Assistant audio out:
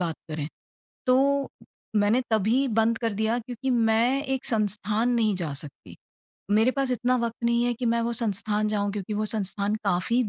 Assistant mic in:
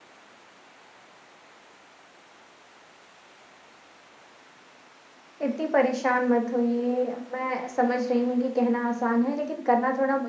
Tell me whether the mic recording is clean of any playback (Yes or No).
Yes